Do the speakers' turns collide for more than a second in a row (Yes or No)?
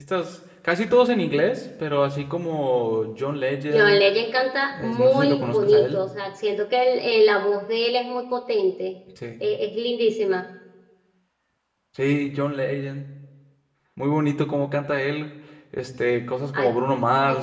Yes